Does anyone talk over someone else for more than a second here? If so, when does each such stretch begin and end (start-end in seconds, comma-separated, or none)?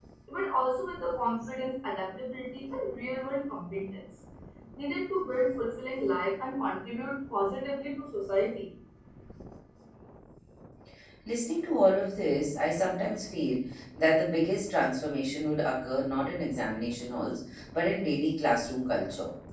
none